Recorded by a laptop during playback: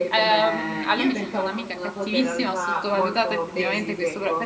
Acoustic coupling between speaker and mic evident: Yes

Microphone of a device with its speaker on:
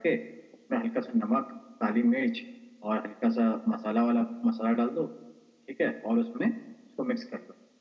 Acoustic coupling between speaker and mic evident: Yes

